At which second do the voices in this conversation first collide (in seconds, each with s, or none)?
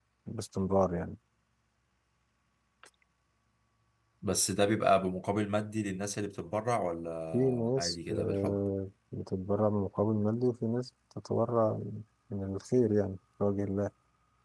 7.3 s